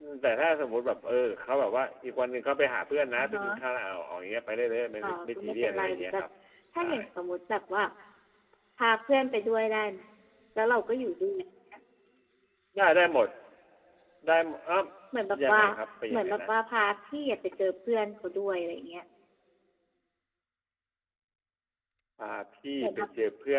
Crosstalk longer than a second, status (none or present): present